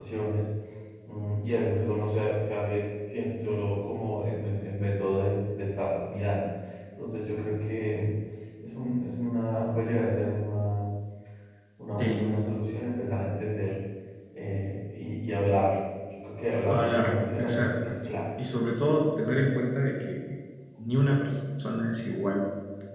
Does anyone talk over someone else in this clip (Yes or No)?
Yes